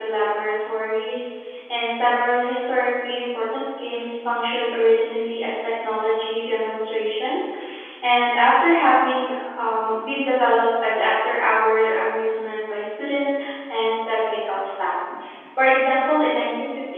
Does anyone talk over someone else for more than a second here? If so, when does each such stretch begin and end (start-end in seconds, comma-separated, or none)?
none